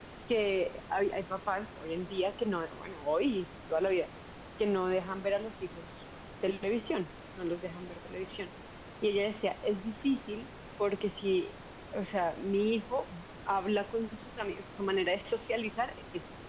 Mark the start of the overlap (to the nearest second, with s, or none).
none